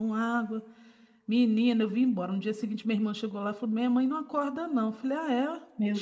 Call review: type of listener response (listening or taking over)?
listening